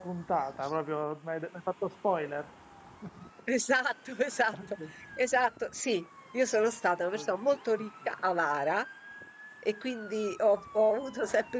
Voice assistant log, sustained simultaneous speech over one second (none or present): none